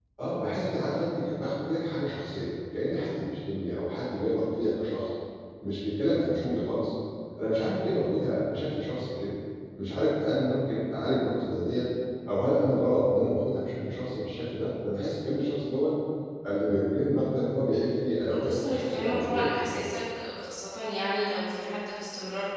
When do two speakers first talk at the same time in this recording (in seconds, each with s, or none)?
18.3 s